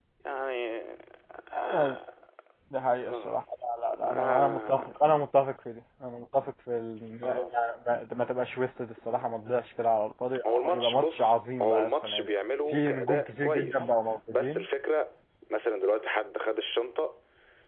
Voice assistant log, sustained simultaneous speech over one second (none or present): present